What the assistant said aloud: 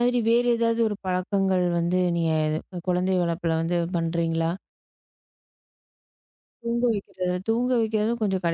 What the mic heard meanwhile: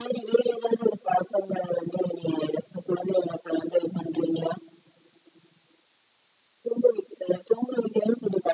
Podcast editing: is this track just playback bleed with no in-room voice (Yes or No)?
Yes